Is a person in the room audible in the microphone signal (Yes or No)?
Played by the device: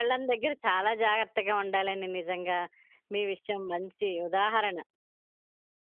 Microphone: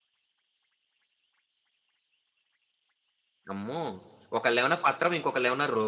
Yes